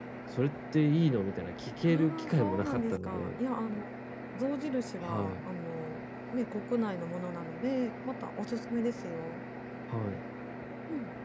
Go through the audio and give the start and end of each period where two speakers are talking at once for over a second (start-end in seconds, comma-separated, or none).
1.9-3.4